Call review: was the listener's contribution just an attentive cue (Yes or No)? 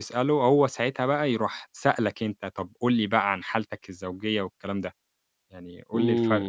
No